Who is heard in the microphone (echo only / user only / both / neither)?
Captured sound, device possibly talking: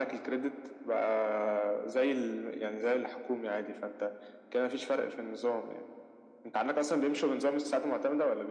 echo only